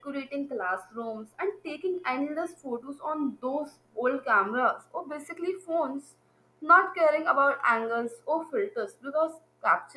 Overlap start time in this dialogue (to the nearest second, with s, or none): none